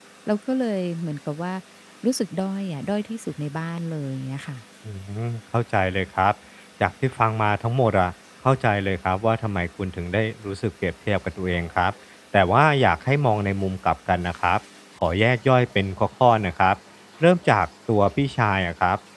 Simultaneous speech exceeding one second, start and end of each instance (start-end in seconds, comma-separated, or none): none